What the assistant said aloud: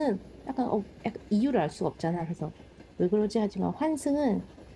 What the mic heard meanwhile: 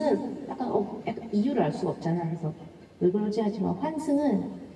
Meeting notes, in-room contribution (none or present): none